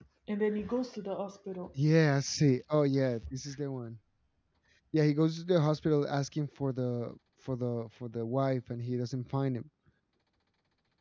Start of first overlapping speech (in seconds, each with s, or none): none